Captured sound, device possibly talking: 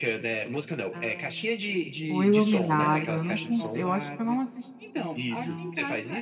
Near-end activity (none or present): present